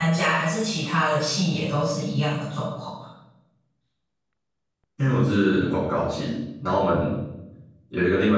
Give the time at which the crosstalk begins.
none

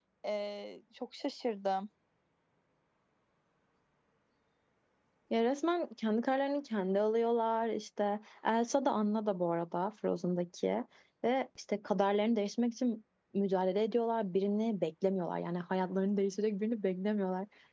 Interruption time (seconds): none

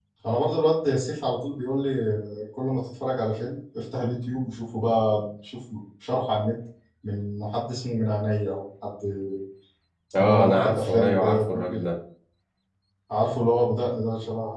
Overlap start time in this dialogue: 10.2 s

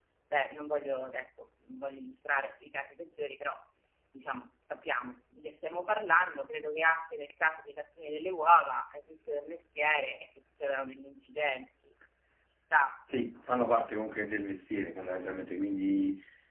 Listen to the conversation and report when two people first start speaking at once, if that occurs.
none

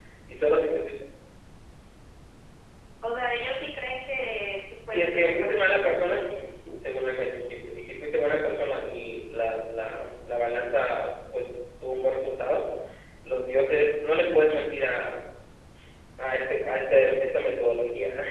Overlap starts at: 4.8 s

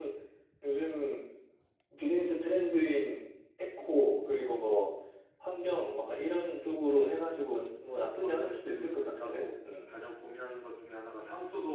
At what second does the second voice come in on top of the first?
7.8 s

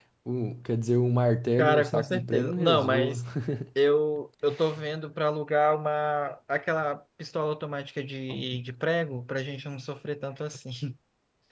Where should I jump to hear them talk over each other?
1.6 s

